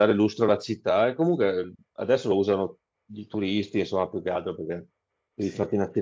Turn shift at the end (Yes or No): No